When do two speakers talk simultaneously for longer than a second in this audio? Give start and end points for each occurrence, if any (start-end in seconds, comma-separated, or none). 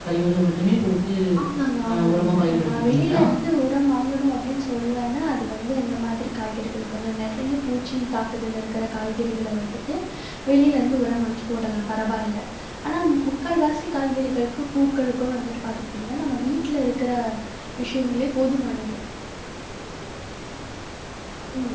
1.9-3.2